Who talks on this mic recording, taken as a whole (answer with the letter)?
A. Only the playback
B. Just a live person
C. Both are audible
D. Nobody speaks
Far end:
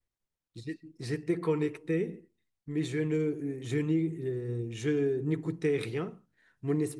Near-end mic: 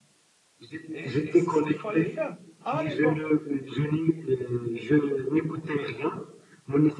C